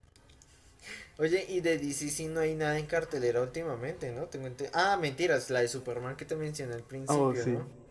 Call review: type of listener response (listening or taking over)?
taking over